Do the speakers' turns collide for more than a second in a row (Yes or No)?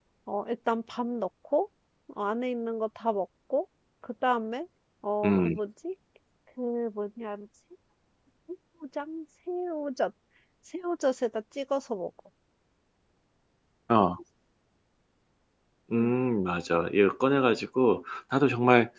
No